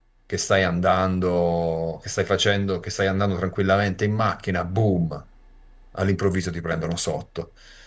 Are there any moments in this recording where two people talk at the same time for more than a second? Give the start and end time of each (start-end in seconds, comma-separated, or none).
none